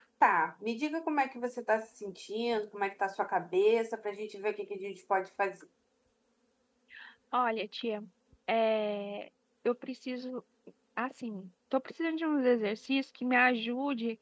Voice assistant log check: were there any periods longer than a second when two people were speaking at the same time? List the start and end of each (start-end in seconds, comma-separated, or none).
none